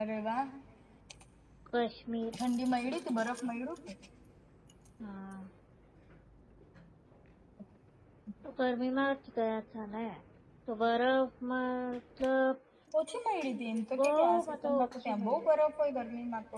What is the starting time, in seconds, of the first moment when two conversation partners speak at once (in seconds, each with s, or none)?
14.0 s